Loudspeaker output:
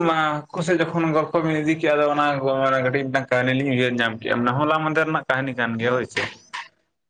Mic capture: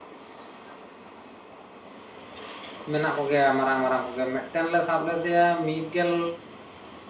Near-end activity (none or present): present